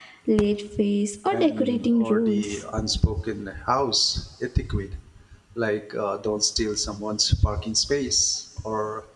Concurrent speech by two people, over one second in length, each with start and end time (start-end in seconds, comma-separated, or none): 1.3-2.6